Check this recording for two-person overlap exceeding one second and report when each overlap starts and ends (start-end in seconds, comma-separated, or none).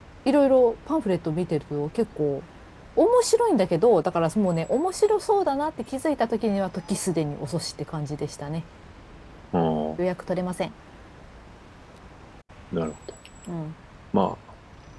none